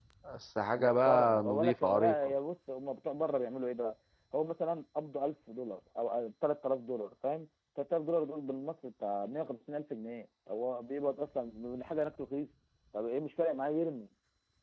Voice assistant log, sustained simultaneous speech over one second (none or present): present